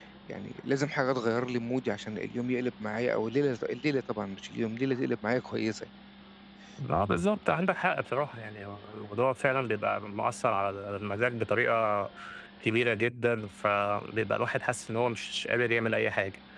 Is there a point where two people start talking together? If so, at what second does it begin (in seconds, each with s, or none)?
none